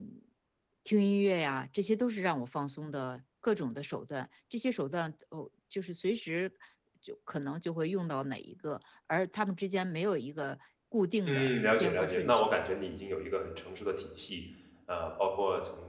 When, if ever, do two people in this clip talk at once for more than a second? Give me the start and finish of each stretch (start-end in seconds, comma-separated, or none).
11.3-12.5